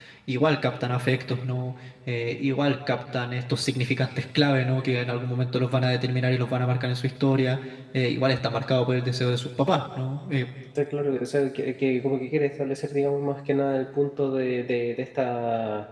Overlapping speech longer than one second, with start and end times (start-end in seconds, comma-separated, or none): none